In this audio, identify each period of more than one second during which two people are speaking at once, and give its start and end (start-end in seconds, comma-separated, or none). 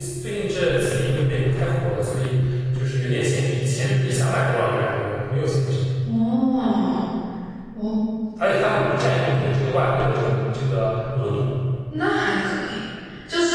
none